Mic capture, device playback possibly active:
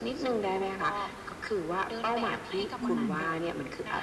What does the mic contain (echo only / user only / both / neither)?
both